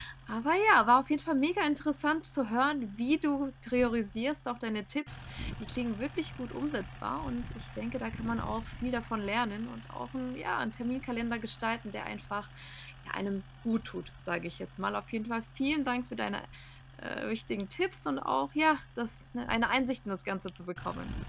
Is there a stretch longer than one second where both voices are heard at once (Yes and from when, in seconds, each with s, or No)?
No